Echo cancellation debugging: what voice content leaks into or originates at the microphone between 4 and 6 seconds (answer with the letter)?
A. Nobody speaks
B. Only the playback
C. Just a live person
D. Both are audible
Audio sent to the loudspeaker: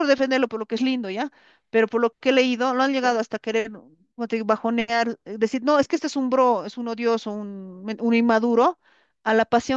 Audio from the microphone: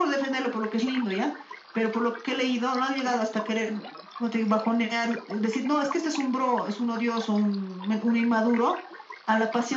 B